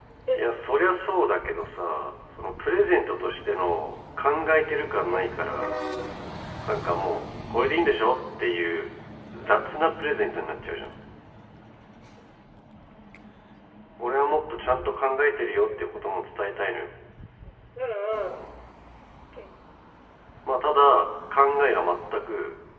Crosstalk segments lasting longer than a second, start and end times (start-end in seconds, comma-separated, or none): none